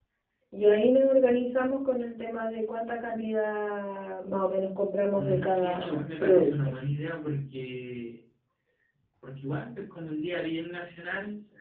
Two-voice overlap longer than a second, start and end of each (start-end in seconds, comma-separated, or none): 5.1-6.5